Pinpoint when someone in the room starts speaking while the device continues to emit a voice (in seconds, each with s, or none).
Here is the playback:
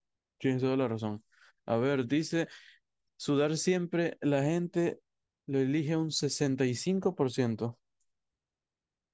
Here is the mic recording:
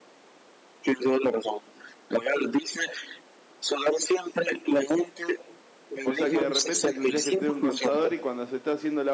6.0 s